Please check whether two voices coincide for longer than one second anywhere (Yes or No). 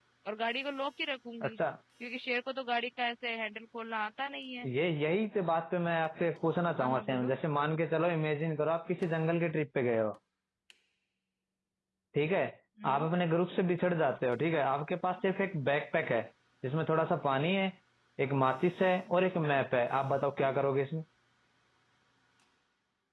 No